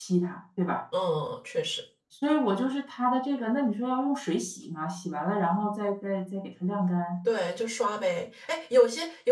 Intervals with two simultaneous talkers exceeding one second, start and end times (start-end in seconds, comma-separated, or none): none